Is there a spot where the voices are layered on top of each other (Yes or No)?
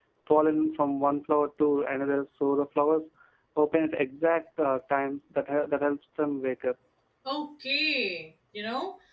No